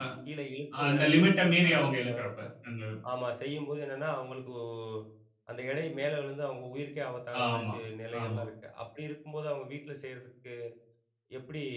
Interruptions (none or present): present